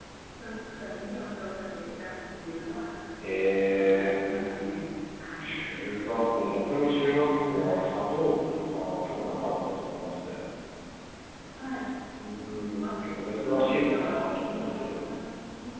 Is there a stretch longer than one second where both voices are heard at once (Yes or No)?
Yes